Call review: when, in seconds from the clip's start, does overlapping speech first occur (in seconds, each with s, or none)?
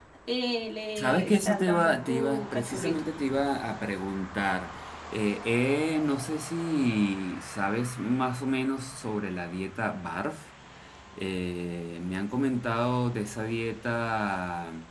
1.0 s